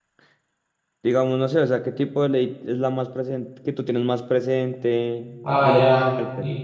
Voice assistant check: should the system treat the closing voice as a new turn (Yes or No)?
Yes